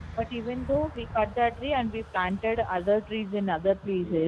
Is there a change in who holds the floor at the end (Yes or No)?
No